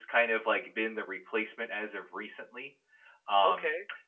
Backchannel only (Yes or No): No